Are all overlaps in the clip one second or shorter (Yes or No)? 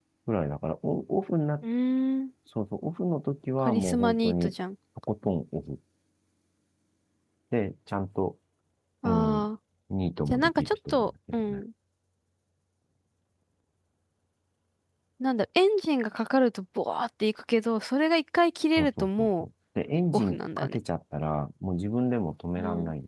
No